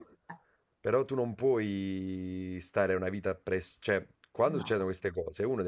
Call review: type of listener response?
listening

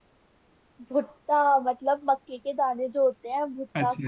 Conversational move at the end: taking over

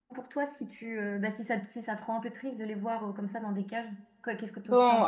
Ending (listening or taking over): taking over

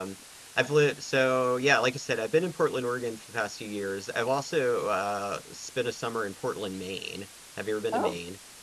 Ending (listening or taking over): taking over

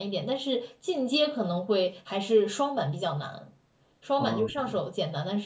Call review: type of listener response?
listening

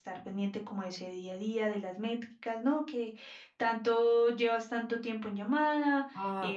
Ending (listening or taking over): listening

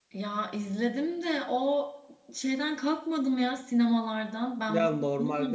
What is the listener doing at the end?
taking over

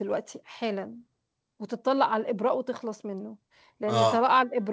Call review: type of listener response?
listening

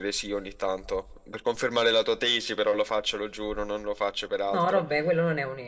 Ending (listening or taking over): taking over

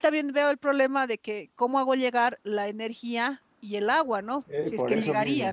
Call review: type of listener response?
taking over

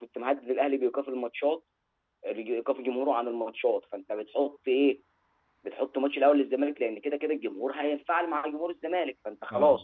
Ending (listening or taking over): listening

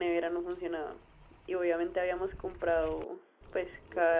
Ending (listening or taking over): listening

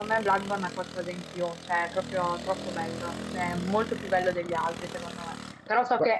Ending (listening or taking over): listening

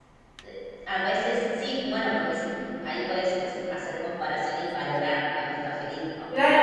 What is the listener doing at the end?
taking over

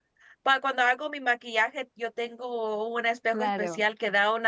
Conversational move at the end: listening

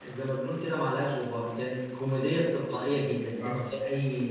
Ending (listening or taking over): listening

